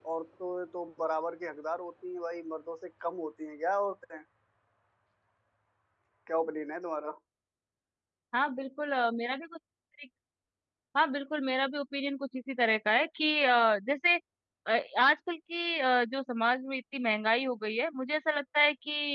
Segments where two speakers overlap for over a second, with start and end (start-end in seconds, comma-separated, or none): none